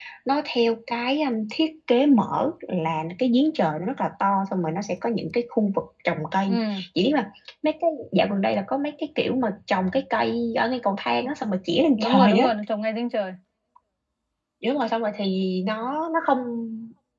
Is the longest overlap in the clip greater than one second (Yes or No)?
No